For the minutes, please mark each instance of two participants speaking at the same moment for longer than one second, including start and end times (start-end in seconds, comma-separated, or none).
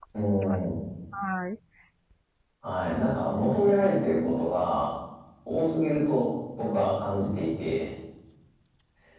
2.9-4.5